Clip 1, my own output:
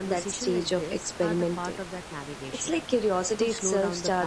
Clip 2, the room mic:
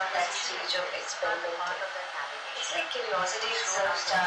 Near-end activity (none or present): none